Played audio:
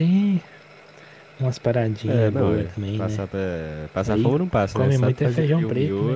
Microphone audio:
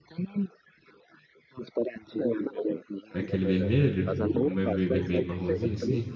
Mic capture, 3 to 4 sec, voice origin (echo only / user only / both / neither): both